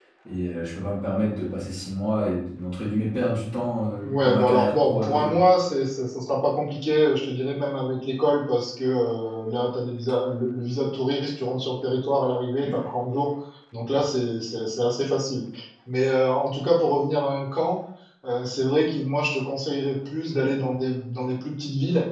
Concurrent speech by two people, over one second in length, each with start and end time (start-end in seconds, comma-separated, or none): 4.0-5.4